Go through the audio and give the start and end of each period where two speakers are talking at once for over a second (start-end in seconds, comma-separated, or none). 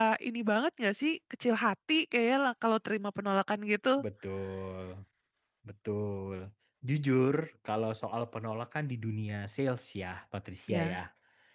none